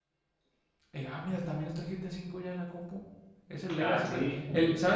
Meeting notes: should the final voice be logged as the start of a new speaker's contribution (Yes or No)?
No